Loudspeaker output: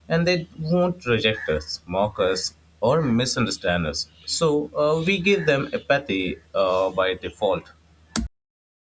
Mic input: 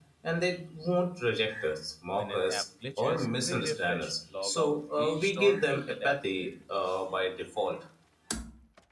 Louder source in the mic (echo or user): echo